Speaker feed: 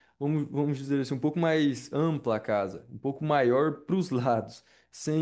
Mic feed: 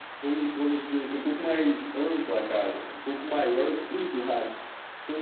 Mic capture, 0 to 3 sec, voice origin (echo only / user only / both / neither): echo only